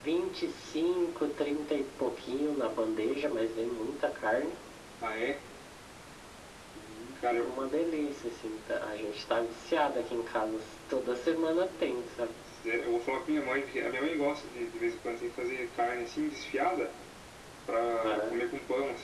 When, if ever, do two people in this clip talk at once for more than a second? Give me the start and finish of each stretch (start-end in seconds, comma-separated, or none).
none